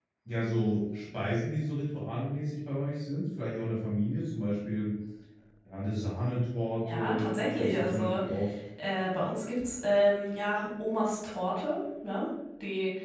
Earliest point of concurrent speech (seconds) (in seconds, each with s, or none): 6.8 s